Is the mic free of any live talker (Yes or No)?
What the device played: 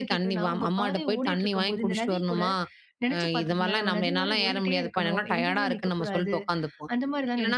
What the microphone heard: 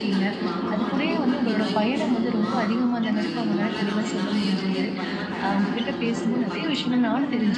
No